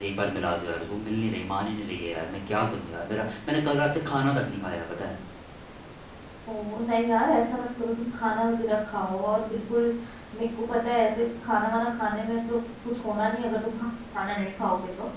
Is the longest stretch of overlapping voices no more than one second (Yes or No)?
Yes